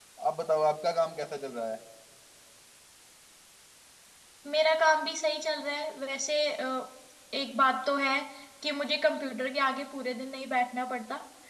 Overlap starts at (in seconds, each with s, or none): none